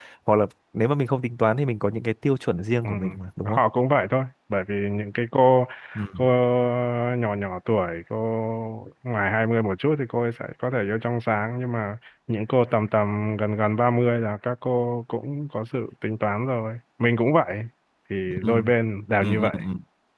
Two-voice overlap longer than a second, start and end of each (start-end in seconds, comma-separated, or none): none